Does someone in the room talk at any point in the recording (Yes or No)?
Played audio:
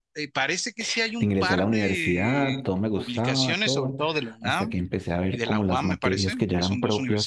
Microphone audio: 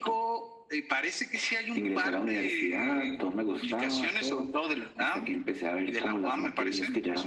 No